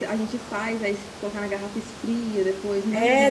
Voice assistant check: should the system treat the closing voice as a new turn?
Yes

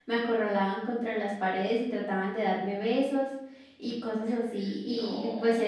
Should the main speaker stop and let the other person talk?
No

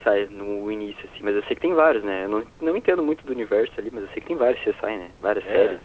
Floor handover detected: Yes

